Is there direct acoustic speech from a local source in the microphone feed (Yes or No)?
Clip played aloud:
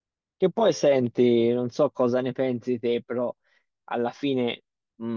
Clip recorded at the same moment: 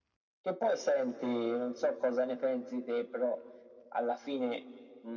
No